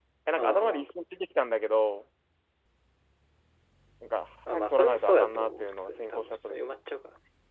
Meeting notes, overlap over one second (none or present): present